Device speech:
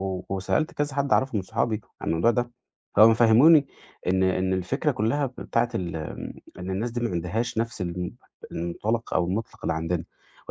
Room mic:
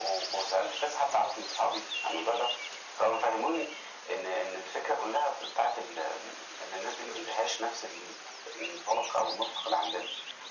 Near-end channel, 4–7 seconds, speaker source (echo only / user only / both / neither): echo only